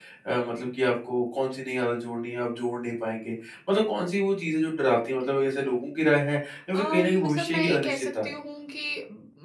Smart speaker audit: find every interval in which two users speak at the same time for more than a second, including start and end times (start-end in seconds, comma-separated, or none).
6.7-8.3